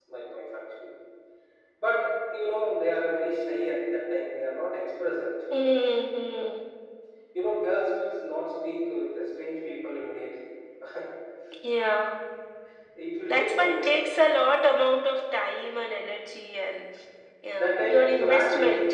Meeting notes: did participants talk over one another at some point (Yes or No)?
Yes